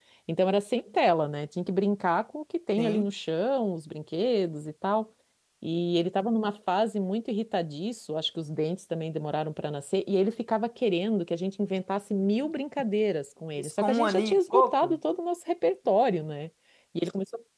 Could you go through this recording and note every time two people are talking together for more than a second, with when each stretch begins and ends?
13.6-15.0

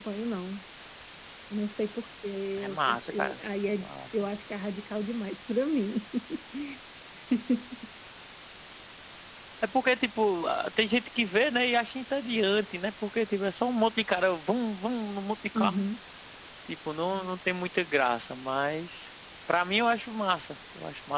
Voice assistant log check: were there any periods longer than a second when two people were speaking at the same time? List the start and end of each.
2.6-3.9

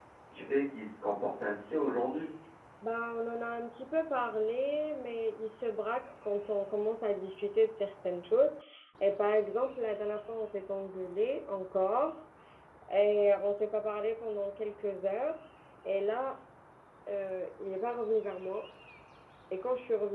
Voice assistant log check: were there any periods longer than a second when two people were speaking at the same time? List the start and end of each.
none

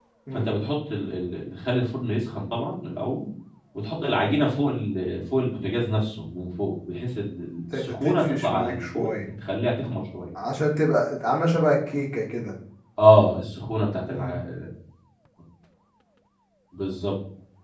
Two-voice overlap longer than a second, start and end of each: 7.7-9.1

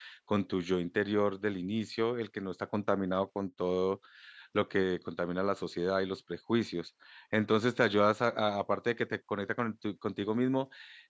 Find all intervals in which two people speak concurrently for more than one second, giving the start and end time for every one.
none

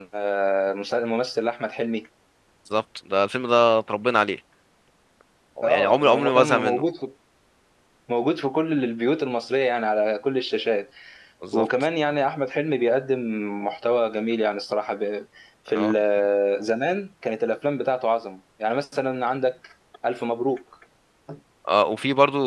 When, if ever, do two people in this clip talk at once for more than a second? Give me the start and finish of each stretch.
5.6-6.8

